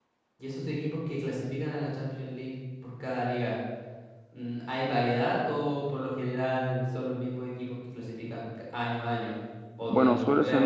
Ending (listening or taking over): taking over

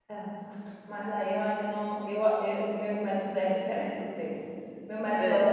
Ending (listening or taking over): listening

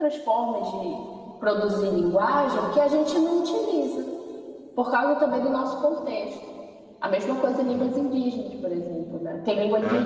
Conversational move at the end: taking over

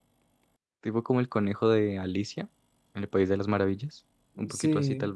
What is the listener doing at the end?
taking over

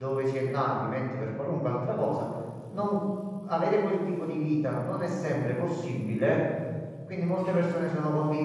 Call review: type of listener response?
listening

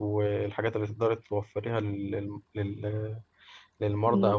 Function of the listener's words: listening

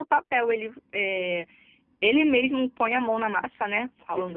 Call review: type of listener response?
taking over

